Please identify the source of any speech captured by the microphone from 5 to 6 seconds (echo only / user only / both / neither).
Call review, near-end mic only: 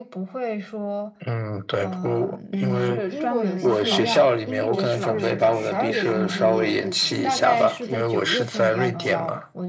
both